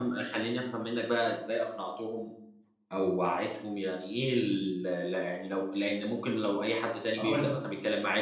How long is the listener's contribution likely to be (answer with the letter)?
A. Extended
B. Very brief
B